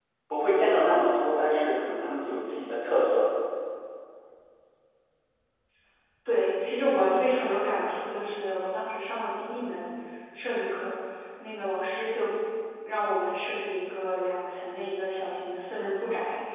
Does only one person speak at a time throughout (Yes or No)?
Yes